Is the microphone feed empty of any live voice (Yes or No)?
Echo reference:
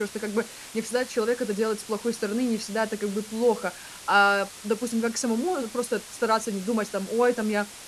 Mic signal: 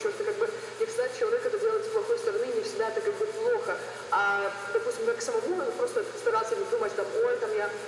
Yes